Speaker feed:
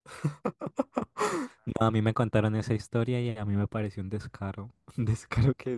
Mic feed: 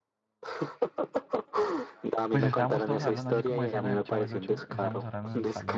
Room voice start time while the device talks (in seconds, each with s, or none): 2.3 s